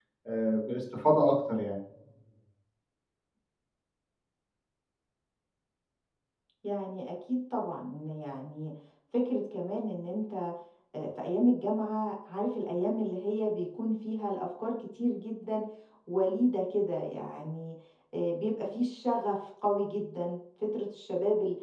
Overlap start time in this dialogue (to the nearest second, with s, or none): none